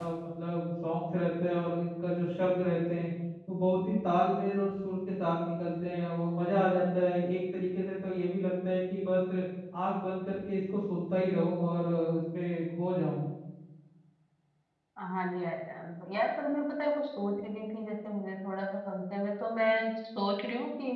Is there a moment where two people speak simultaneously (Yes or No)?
No